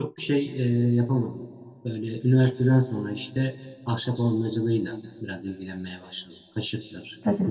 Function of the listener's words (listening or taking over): taking over